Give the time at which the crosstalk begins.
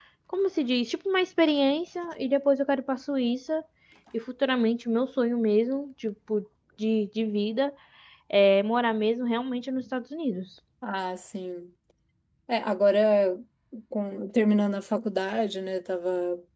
none

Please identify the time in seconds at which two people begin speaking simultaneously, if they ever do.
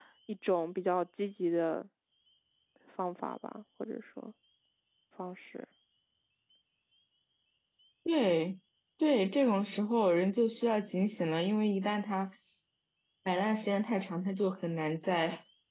none

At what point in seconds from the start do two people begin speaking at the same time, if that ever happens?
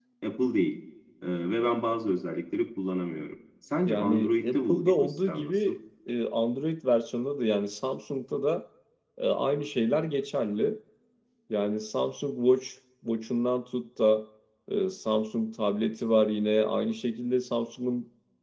3.9 s

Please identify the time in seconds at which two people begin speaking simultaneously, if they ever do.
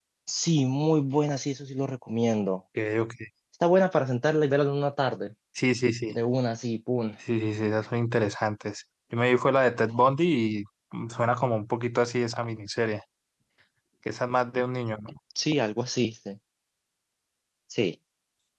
none

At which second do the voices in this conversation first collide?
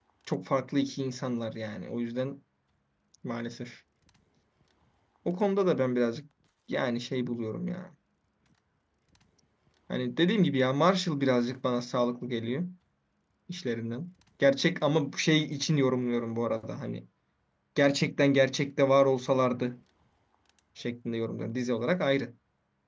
none

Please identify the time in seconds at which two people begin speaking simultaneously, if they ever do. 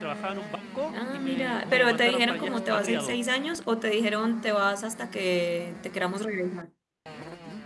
0.9 s

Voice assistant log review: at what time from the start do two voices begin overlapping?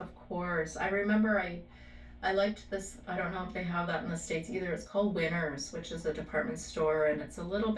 none

